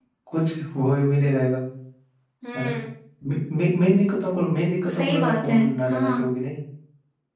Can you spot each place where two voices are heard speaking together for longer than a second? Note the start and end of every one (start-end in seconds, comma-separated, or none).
5.0-6.3